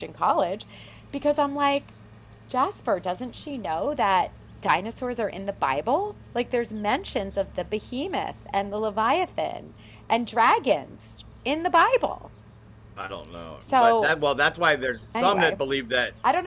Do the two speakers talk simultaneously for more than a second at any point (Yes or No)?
No